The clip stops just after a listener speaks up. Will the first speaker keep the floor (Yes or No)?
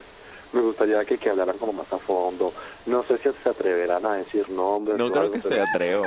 No